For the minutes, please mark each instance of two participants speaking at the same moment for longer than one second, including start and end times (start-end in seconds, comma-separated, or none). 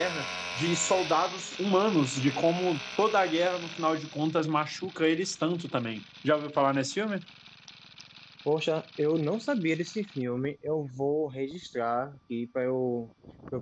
none